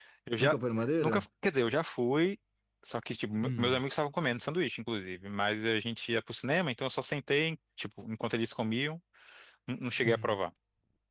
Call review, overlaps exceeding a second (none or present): none